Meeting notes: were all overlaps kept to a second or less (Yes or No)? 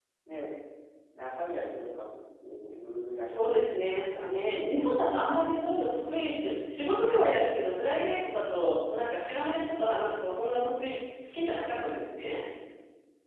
No